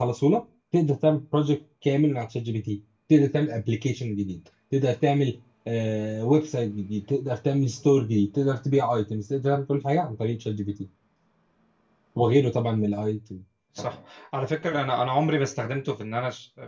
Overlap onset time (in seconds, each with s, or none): none